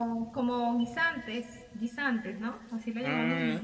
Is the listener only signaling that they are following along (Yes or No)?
No